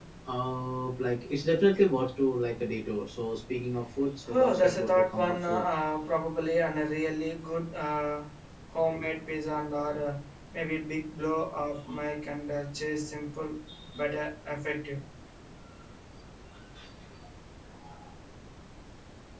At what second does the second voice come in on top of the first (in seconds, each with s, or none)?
4.3 s